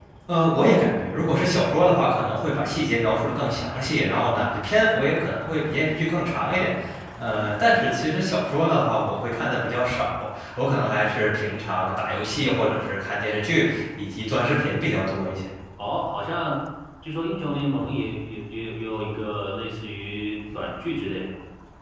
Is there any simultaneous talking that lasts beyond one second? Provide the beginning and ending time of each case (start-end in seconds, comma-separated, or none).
none